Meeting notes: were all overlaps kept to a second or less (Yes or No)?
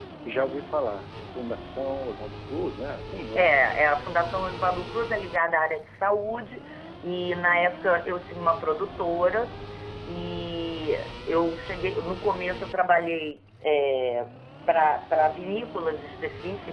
Yes